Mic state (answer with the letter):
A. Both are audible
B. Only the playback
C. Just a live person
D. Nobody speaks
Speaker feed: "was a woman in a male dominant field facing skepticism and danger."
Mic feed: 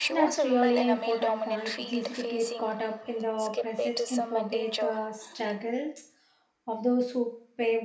A